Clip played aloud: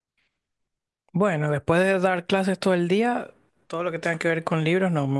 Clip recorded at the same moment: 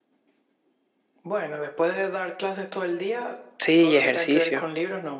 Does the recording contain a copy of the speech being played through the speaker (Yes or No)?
Yes